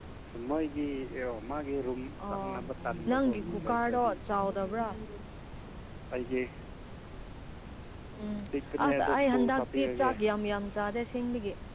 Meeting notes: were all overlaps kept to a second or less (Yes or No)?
No